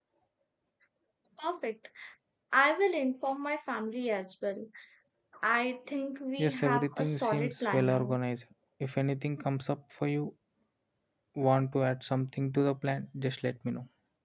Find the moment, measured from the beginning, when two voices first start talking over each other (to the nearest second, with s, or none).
6 s